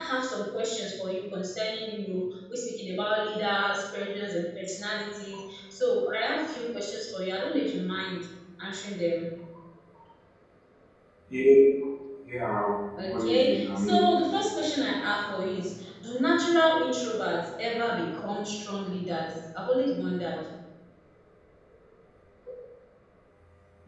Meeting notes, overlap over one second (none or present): present